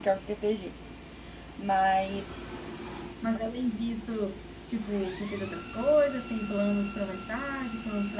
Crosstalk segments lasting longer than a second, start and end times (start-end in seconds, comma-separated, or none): none